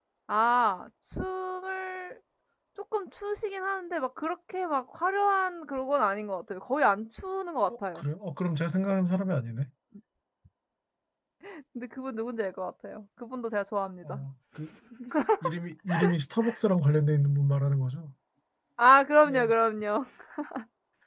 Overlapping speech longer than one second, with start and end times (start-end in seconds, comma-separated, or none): none